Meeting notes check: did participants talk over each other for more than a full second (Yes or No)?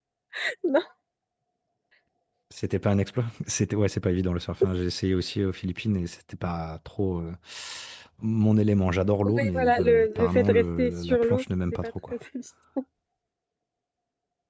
Yes